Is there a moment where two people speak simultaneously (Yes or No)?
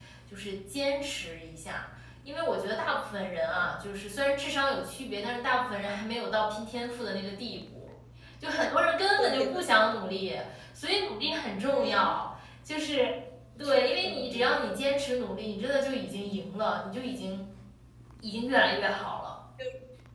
Yes